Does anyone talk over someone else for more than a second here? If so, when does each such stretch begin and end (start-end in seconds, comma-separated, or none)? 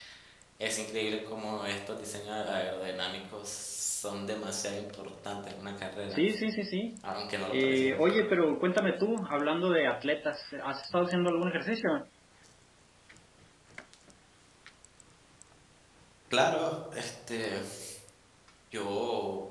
none